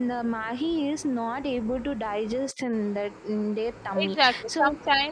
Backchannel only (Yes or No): No